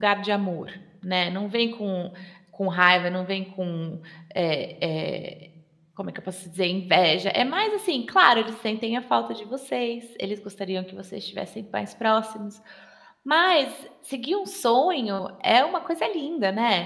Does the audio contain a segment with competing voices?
No

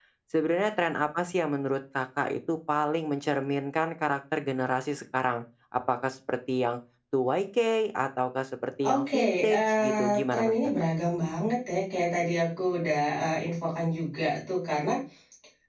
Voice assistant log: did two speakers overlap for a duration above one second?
Yes, from 8.8 s

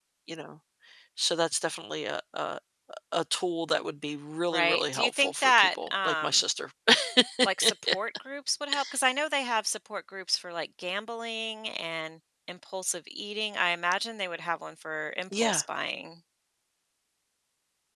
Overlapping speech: Yes, from 4.5 s

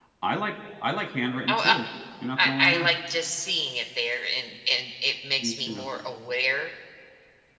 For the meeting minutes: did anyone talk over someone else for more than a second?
No

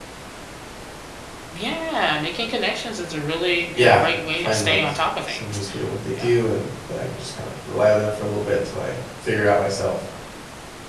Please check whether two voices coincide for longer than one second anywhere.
Yes, from 3.8 s

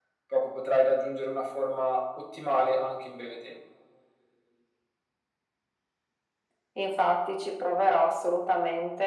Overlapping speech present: No

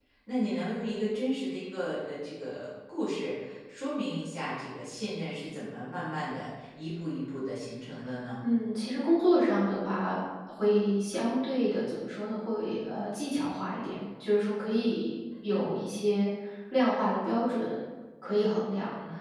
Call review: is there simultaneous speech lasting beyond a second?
No

